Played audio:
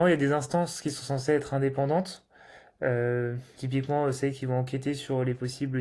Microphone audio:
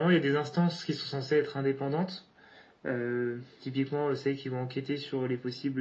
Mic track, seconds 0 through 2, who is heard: echo only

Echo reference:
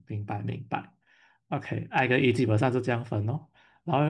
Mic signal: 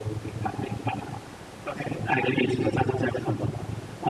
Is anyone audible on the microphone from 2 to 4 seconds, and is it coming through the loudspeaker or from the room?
echo only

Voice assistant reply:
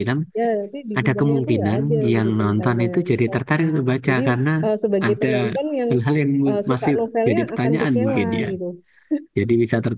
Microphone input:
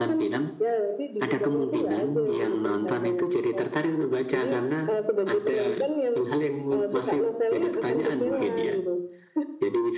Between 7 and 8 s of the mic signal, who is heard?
echo only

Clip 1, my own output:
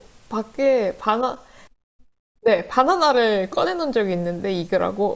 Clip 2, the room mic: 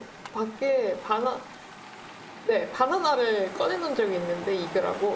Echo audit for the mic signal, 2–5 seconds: echo only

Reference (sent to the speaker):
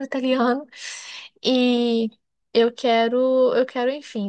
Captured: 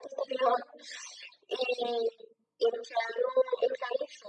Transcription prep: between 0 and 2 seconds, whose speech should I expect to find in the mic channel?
echo only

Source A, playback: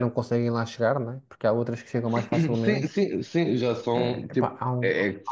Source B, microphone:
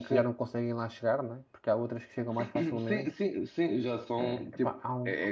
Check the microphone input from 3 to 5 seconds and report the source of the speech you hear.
echo only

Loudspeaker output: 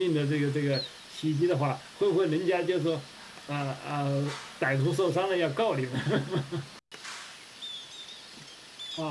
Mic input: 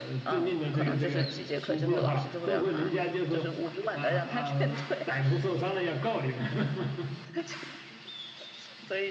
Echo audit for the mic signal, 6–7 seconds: echo only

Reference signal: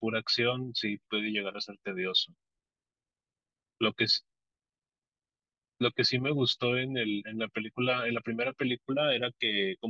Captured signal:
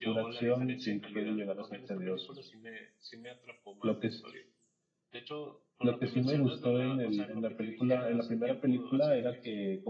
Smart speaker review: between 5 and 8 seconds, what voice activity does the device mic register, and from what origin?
both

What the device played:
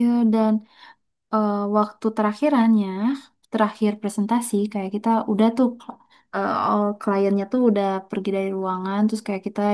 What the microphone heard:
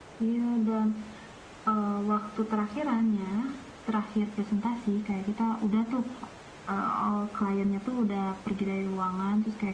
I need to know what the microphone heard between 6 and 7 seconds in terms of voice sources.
echo only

